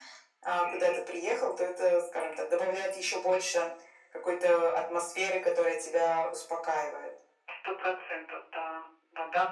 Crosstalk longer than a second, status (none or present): none